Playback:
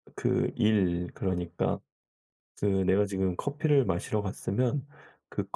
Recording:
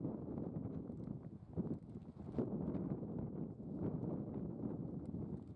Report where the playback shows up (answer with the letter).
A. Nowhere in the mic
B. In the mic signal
A